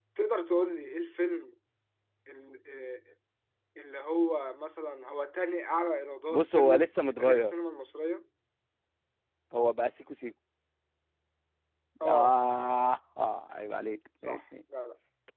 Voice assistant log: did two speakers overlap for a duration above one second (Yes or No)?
Yes